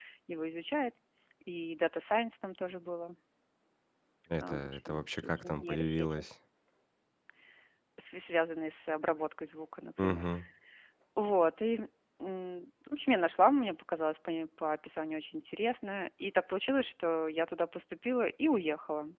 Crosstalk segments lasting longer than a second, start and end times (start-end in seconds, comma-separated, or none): 4.4-6.2